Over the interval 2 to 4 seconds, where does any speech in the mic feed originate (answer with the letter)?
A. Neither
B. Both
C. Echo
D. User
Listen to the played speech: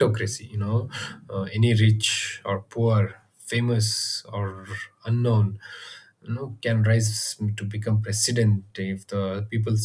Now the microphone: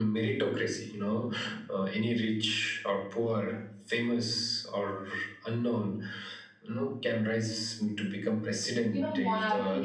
C